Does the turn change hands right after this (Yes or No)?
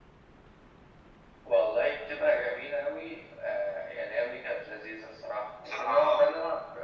No